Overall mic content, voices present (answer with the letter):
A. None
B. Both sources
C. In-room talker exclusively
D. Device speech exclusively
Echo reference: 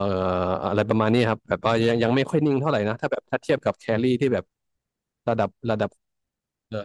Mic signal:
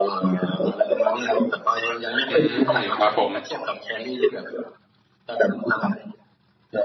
B